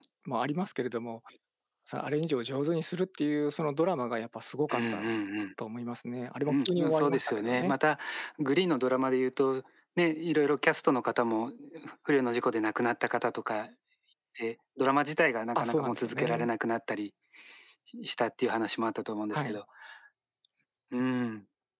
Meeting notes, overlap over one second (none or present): present